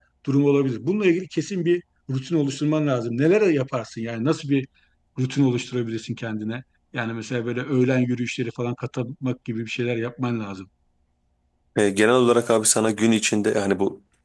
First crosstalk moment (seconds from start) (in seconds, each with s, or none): none